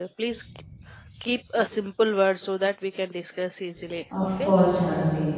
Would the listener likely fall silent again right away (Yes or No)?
No